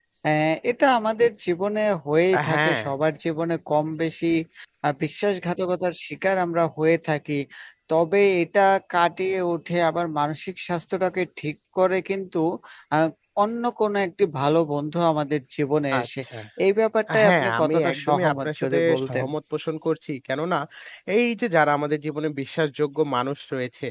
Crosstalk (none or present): present